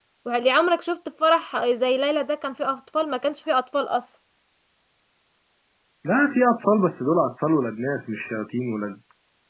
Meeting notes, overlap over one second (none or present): none